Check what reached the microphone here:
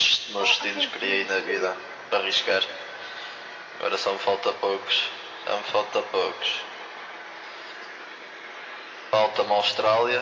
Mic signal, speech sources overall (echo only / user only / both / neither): both